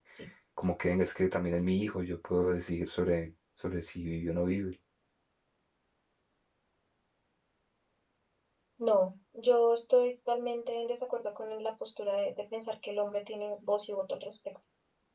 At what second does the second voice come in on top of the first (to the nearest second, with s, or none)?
none